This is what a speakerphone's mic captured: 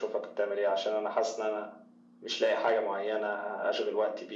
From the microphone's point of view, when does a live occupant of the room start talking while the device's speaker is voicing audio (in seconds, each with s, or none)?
none